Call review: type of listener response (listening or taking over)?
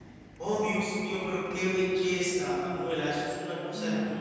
listening